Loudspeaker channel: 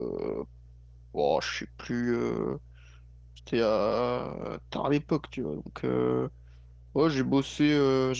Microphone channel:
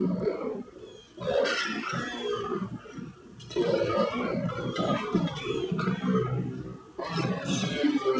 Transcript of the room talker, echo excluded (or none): none